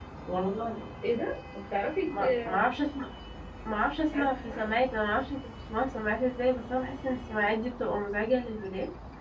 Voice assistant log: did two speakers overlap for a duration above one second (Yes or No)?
No